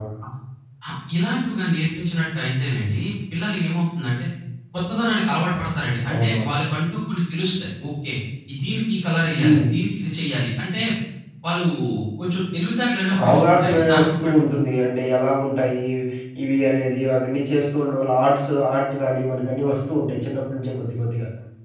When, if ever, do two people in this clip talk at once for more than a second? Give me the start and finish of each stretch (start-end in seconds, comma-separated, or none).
13.1-14.5